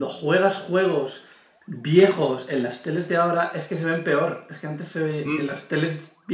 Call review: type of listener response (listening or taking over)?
listening